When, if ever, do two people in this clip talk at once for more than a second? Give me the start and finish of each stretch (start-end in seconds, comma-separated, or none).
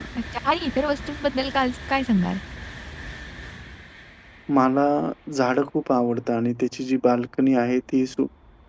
none